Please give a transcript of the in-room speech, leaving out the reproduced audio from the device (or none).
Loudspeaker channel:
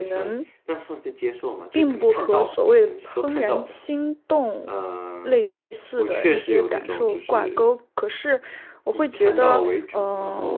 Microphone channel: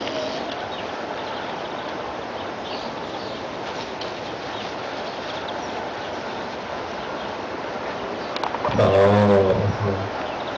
哦，嗯